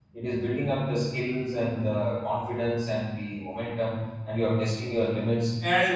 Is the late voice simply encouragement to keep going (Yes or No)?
Yes